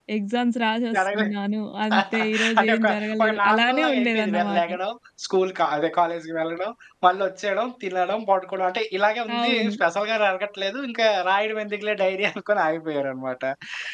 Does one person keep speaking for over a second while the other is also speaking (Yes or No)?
Yes